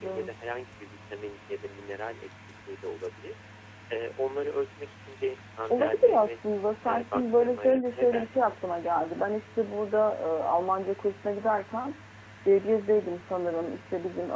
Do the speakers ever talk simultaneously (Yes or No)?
Yes